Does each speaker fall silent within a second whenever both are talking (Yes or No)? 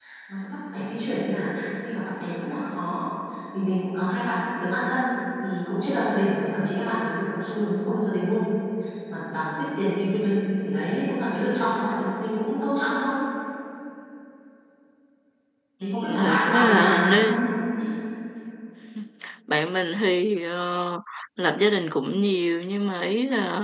No